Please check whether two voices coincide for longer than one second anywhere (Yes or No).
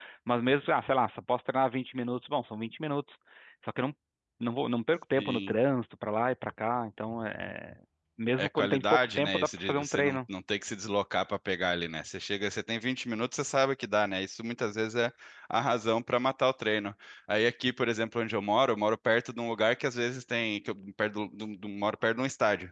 Yes